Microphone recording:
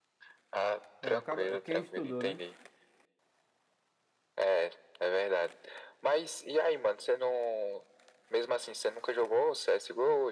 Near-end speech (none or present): present